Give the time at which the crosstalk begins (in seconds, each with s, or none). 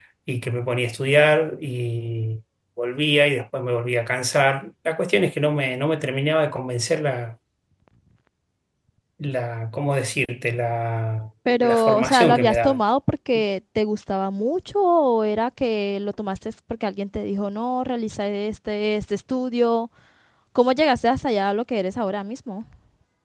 11.4 s